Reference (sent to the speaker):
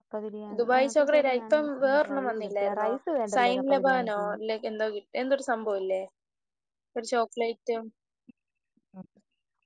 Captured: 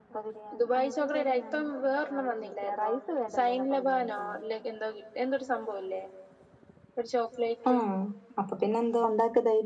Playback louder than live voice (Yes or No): No